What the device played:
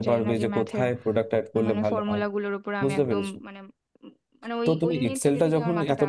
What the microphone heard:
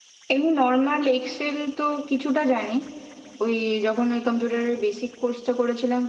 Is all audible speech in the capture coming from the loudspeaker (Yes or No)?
No